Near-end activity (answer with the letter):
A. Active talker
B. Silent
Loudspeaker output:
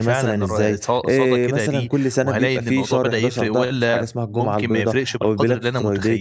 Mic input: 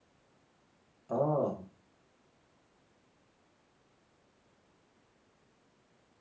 A